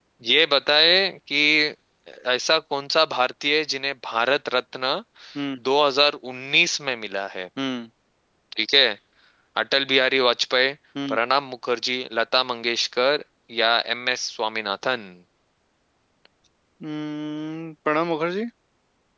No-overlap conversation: Yes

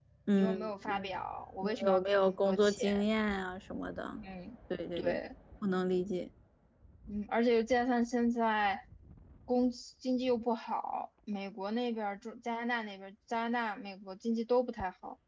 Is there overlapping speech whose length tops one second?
Yes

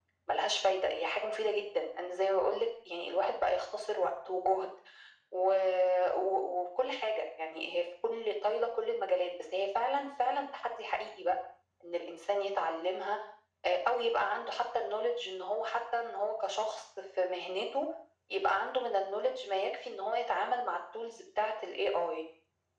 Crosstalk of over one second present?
No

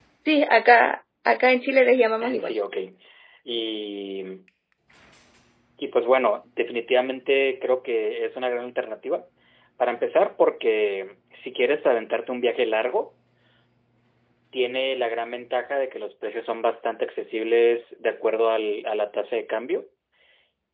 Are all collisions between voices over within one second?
Yes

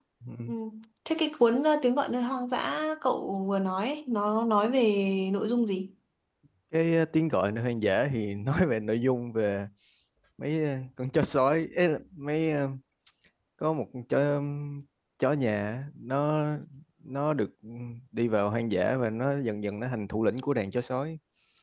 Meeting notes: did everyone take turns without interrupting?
Yes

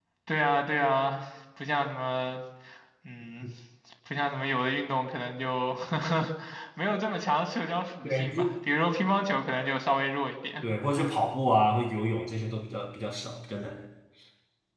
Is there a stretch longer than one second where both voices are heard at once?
No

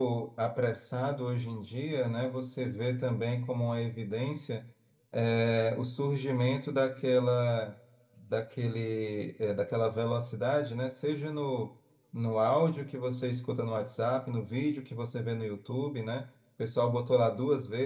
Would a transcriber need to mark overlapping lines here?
No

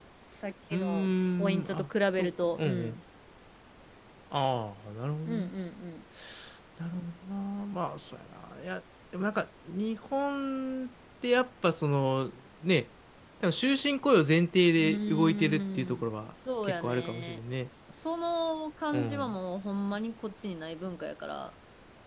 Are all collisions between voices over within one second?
No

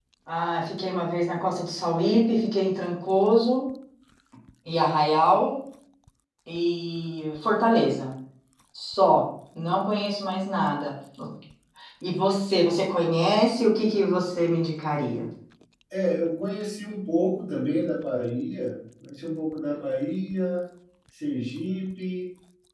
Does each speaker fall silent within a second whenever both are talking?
Yes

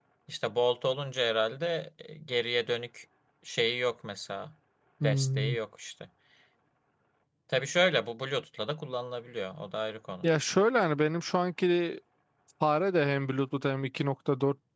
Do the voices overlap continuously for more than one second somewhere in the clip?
No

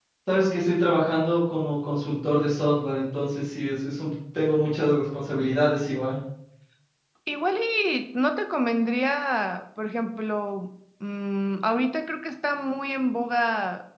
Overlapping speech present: No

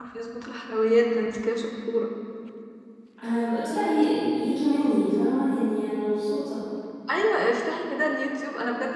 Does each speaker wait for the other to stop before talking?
Yes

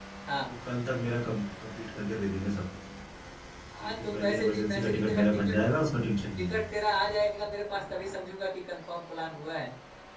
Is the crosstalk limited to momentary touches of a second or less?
No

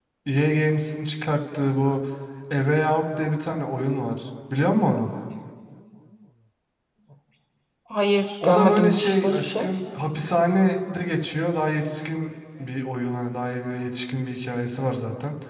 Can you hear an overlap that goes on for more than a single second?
Yes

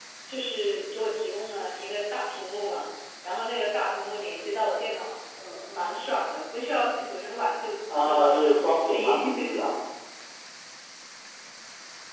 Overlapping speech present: Yes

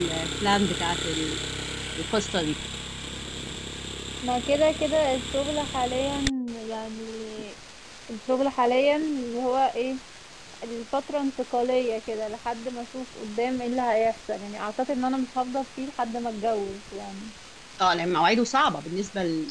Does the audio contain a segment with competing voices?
No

